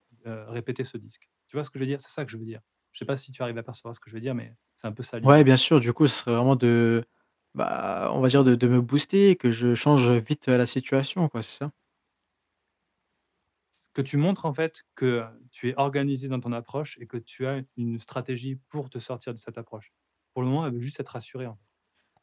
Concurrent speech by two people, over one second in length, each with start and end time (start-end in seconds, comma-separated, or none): none